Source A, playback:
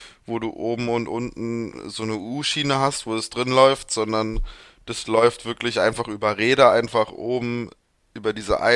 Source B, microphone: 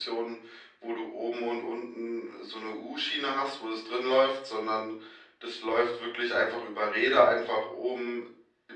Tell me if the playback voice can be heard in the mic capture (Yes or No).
Yes